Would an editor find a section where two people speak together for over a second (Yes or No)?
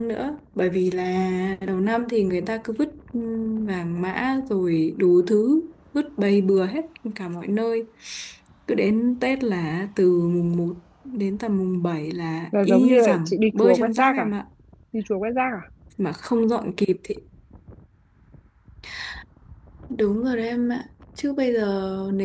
Yes